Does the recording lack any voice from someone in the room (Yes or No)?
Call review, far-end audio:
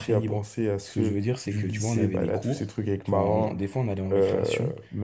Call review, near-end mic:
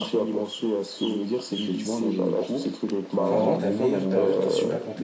No